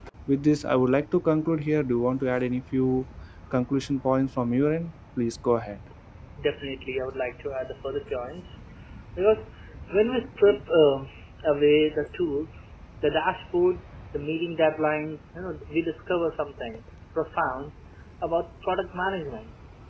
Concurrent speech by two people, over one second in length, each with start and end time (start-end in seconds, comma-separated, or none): none